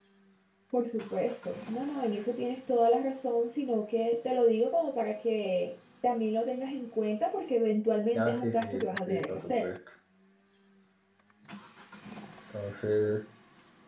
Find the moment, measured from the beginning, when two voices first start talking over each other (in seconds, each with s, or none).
8.1 s